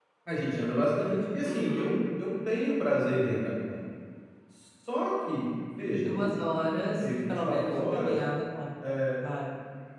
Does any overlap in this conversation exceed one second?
Yes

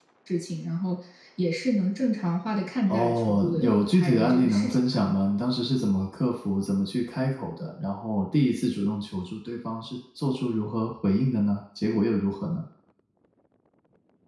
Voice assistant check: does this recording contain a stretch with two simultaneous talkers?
Yes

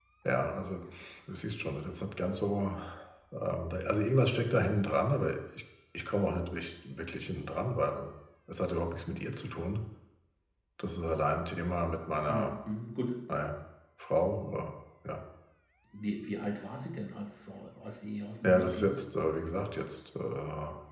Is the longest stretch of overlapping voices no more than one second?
Yes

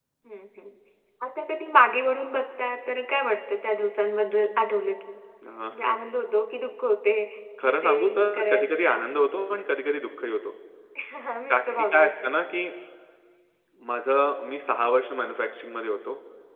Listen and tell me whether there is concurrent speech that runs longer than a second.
Yes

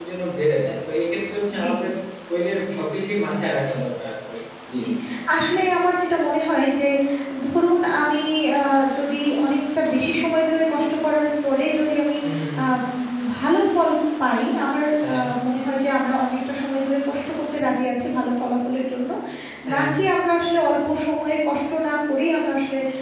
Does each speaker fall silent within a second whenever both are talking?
Yes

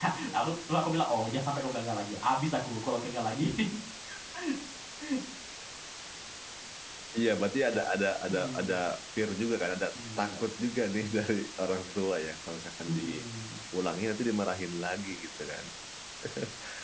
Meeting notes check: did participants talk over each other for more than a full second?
No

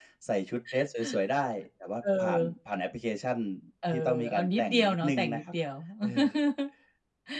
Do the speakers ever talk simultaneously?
Yes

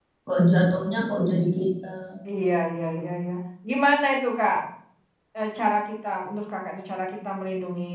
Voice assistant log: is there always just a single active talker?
Yes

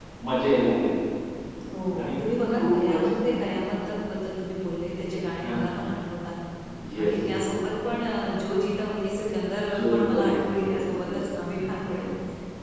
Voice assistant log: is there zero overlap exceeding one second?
No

